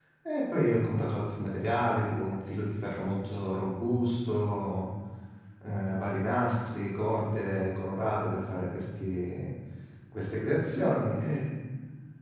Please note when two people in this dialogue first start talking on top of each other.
none

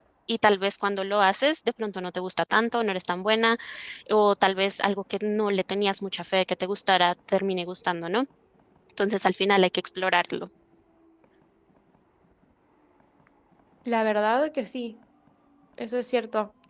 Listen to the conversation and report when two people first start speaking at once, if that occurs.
none

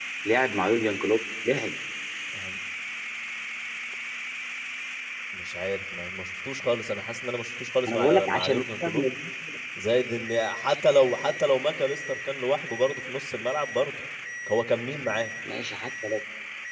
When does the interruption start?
7.8 s

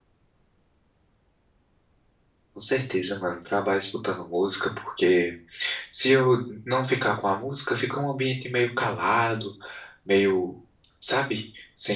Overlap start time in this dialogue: none

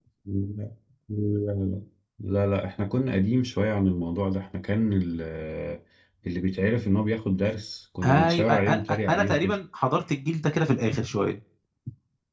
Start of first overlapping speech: 8.0 s

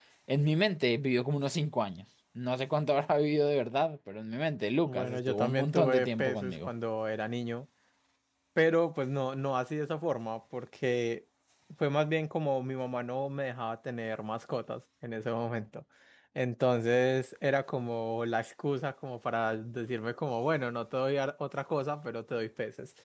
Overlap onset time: 4.9 s

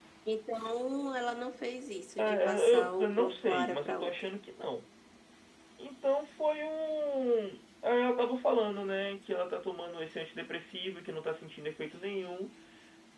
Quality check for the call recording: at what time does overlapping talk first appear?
2.2 s

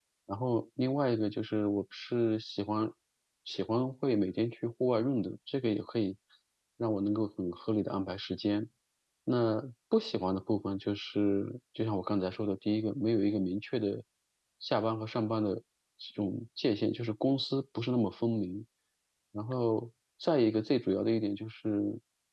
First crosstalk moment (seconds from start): none

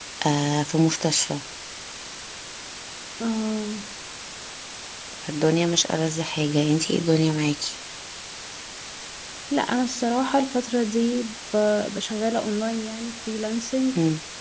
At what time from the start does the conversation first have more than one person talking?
none

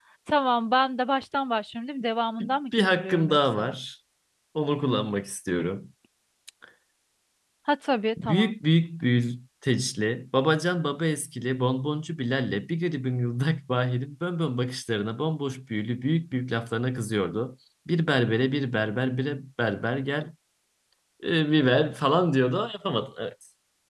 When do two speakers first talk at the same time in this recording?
2.4 s

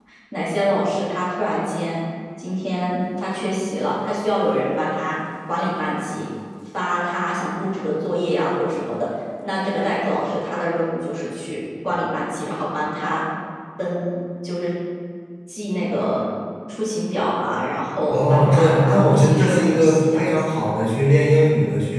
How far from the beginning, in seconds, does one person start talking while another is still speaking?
18.1 s

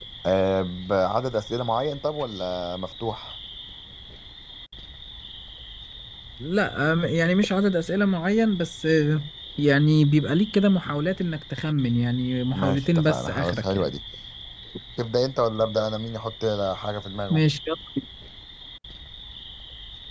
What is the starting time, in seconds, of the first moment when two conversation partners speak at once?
12.5 s

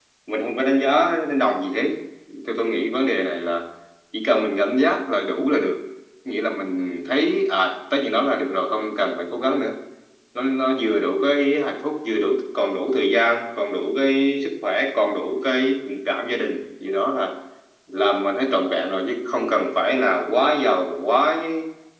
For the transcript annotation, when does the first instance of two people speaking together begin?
none

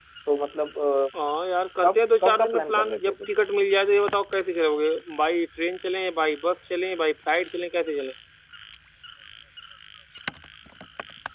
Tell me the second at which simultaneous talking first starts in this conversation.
1.8 s

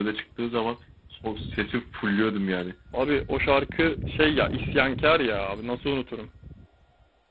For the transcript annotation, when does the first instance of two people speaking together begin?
none

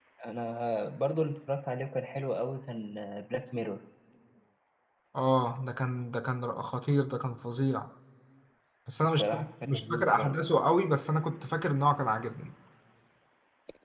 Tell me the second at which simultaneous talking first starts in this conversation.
9.0 s

